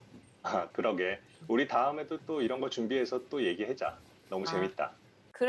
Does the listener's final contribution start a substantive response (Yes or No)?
Yes